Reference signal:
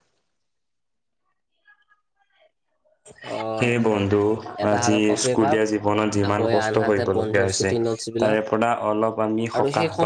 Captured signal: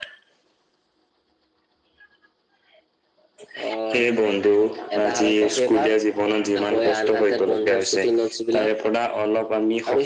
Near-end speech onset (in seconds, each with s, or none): none